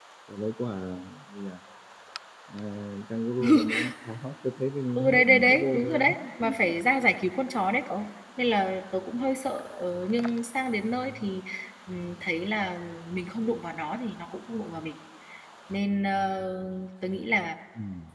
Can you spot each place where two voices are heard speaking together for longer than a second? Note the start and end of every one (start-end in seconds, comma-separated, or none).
5.0-6.5